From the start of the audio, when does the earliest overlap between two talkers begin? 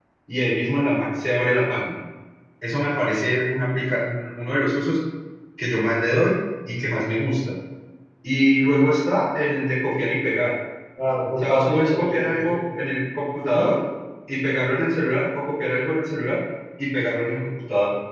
11.4 s

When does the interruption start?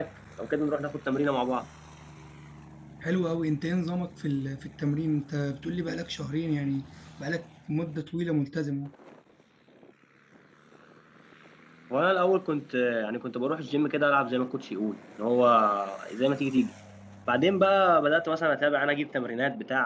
none

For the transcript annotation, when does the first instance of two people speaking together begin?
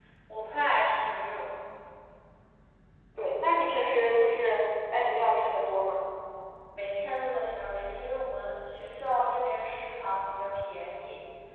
none

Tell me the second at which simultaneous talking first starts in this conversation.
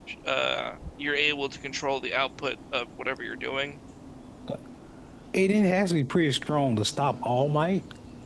none

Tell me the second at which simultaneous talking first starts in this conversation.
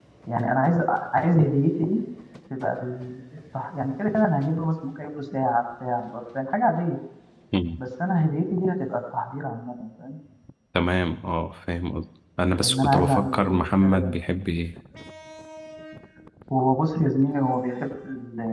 12.6 s

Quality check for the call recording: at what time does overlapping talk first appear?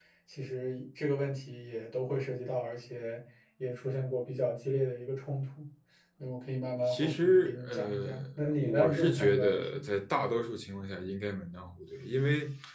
6.9 s

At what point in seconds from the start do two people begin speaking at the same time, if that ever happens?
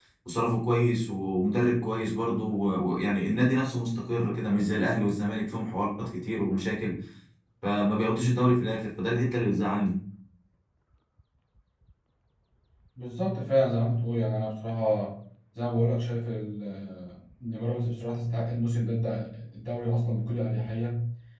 none

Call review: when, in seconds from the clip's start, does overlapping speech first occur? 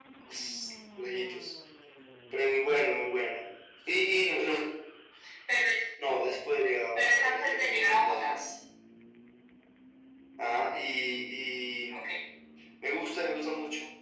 7.0 s

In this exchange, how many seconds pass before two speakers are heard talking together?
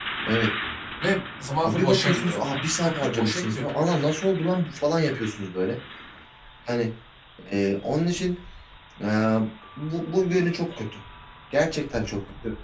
1.6 s

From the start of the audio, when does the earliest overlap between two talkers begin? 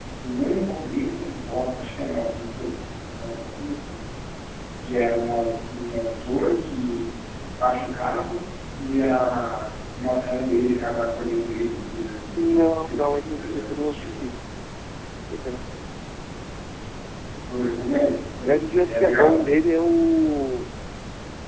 12.4 s

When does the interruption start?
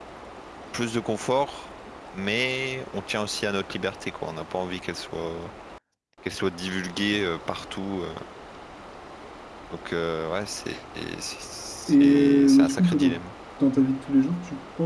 11.9 s

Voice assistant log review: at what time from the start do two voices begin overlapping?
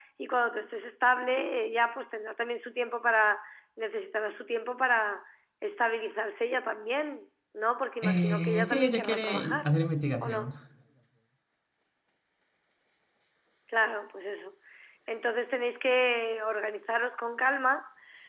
8.0 s

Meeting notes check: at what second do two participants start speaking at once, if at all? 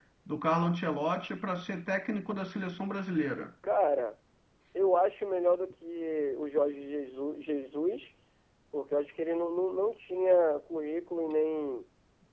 none

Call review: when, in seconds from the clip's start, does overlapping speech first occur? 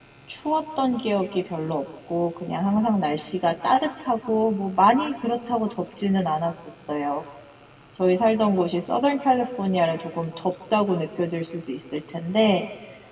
none

